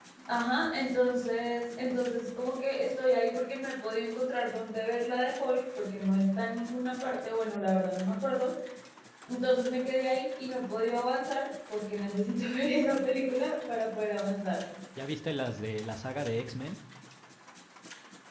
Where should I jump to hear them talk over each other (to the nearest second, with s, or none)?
none